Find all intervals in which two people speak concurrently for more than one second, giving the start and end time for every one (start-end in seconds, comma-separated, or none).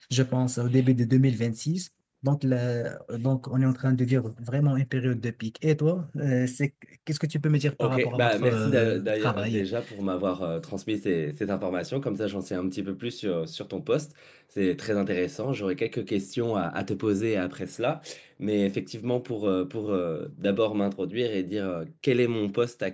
7.8-9.6